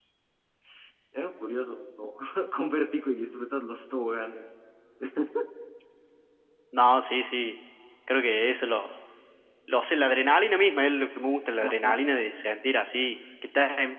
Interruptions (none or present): none